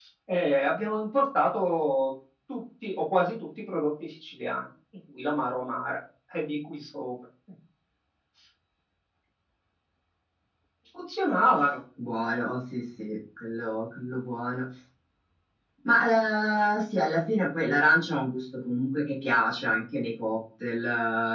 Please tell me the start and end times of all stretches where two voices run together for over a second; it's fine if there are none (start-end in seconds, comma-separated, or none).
none